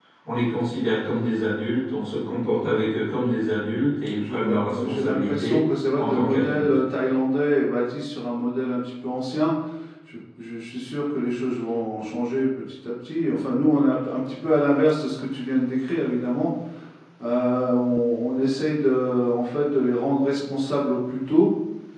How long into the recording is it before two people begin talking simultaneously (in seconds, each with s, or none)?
4.1 s